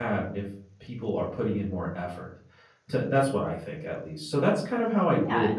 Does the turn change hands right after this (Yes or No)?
No